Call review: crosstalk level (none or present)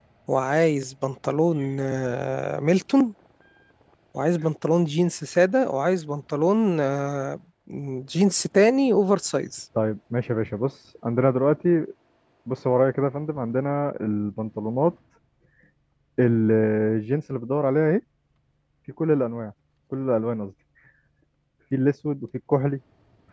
none